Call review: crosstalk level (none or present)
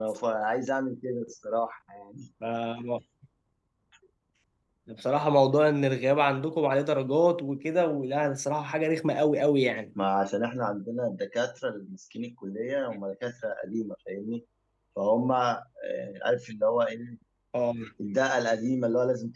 none